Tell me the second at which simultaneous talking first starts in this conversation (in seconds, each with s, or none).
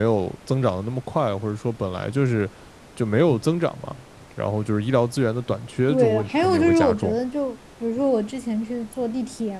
5.9 s